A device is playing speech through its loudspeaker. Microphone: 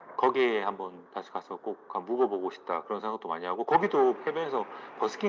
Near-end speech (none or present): none